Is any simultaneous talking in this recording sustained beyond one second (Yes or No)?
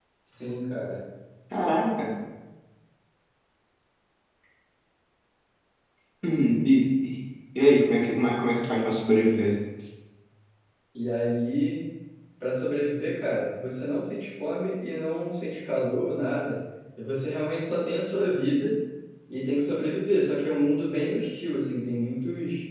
No